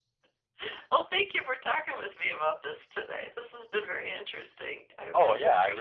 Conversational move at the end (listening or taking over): taking over